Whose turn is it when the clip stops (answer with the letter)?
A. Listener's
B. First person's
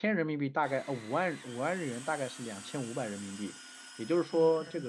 B